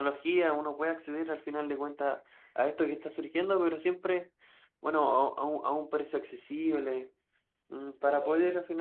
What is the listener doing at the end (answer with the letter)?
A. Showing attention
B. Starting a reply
A